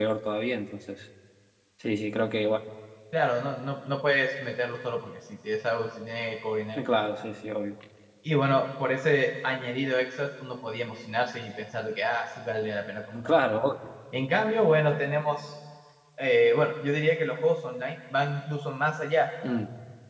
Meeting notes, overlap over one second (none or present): none